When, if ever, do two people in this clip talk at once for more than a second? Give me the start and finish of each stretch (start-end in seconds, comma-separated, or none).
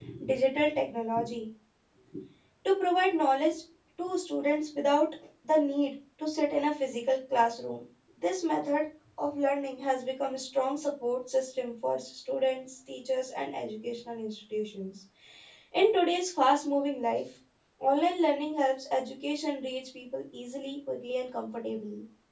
none